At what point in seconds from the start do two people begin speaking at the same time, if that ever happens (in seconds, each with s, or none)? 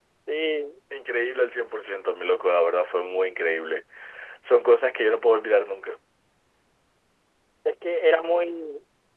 none